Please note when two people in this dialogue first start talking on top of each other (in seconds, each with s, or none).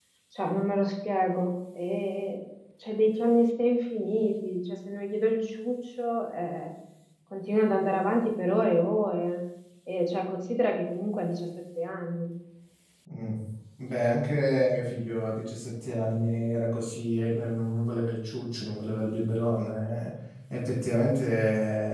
none